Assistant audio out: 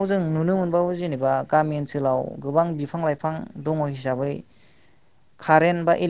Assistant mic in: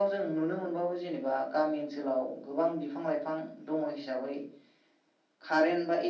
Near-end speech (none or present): none